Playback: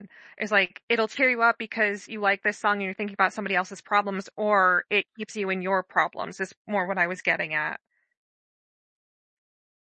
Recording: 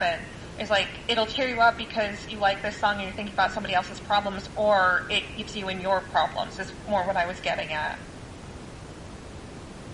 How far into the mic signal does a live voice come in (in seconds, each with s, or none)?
none